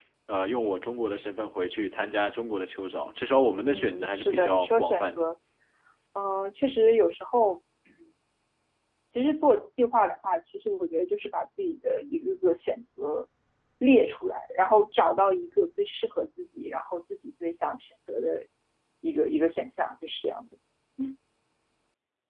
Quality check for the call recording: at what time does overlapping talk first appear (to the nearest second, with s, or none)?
4 s